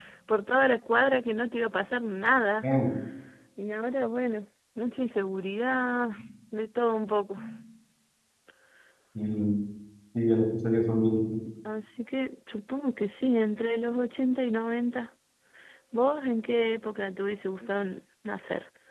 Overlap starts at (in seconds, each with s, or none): none